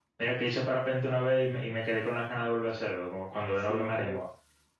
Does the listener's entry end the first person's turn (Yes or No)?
Yes